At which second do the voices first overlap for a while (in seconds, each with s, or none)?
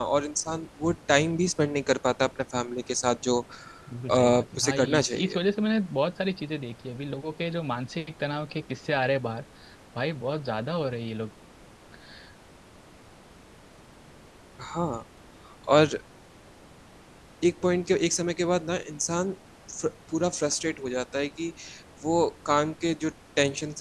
4.1 s